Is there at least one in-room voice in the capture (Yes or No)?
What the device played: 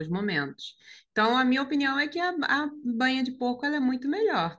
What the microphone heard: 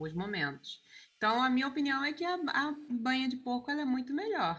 No